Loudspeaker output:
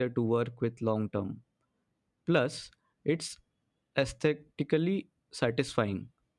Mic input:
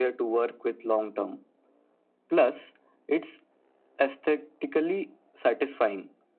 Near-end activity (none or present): none